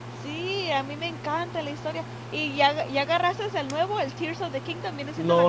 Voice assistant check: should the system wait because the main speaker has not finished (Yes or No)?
No